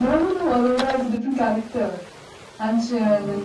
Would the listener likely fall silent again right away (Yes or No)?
Yes